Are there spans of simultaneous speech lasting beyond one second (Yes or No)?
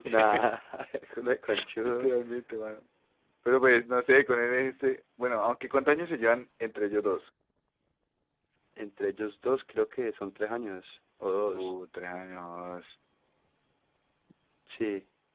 No